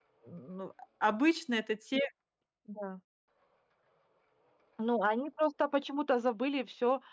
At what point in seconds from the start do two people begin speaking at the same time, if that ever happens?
none

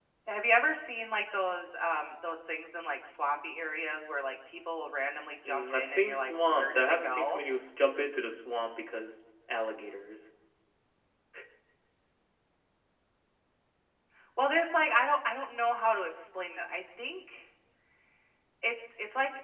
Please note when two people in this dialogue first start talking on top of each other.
5.5 s

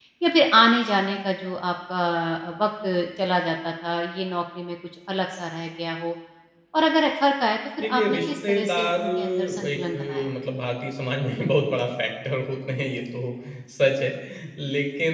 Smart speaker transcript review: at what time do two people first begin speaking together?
7.8 s

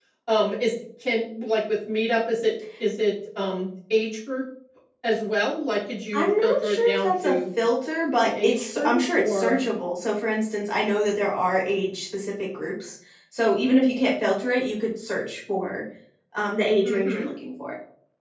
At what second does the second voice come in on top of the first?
6.1 s

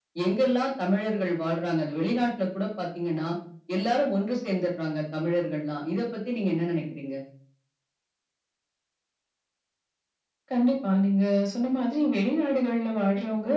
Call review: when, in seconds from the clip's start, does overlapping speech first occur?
none

